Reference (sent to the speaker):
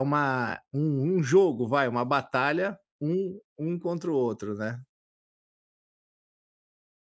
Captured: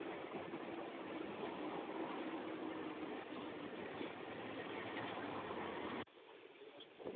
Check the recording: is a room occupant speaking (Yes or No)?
No